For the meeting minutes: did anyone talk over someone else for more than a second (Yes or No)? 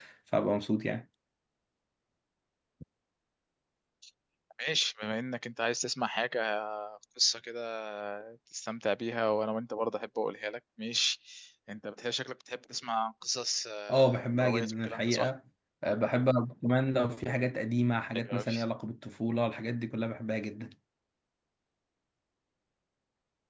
Yes